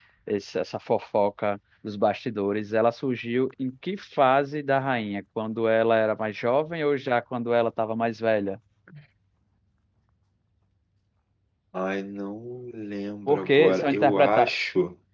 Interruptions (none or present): present